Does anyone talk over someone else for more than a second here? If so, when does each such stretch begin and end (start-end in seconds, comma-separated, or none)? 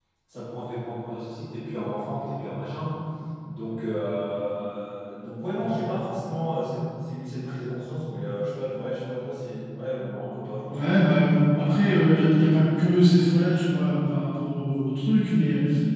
none